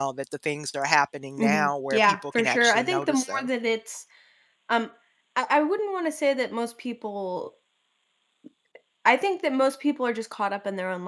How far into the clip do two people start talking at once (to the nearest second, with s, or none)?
1 s